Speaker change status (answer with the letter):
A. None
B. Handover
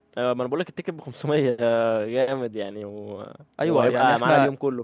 B